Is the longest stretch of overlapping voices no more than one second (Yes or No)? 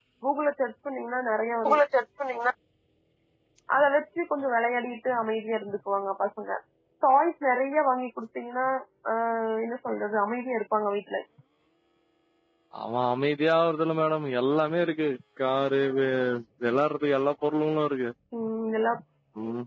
Yes